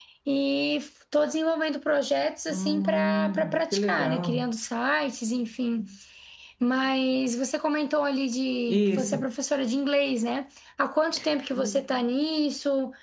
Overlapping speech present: Yes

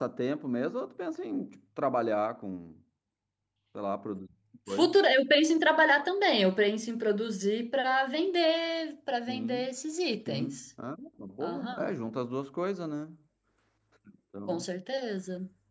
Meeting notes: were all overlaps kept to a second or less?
Yes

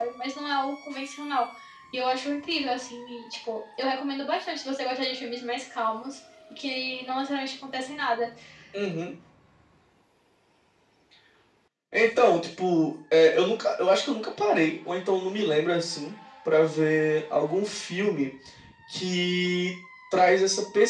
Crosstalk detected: No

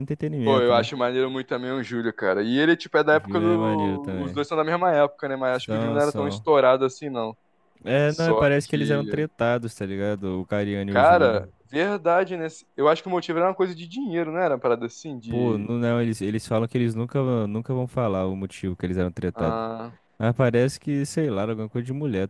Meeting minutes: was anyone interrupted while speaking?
Yes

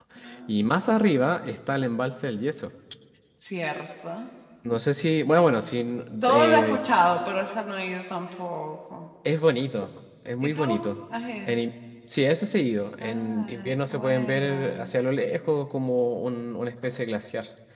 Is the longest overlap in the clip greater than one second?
Yes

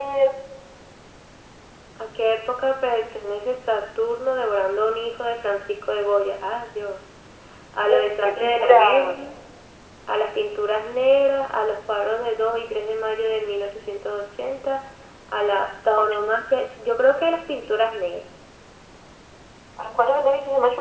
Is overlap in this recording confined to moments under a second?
No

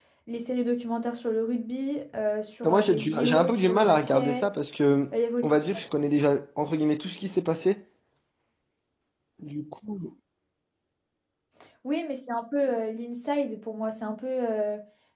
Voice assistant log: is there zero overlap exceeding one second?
No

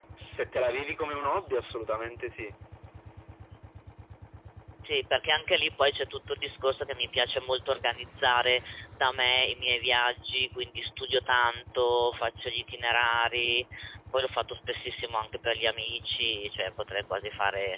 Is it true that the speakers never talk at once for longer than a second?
Yes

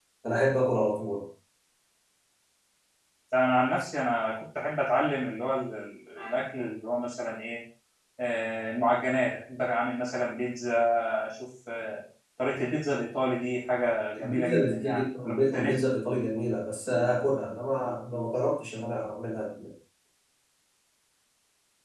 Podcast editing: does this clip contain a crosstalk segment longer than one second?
Yes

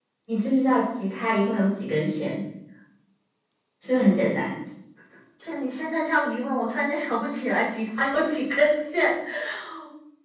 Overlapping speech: No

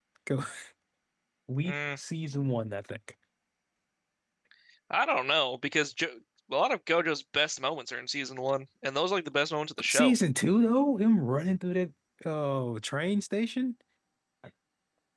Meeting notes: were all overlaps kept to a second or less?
Yes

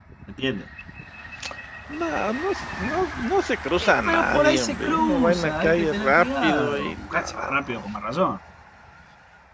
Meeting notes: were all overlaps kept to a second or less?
No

